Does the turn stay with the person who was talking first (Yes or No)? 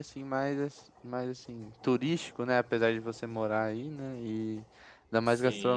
Yes